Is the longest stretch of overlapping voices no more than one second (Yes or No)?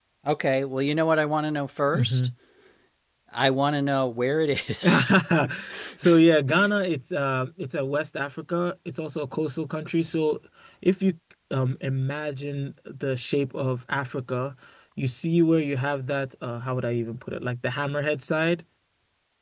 Yes